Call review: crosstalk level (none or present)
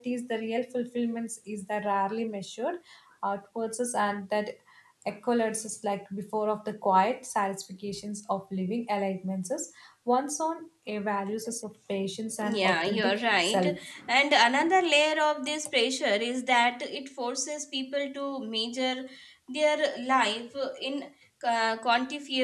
present